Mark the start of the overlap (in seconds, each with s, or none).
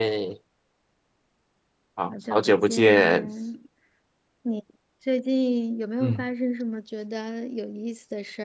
2.1 s